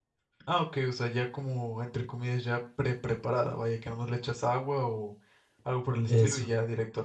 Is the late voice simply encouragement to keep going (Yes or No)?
Yes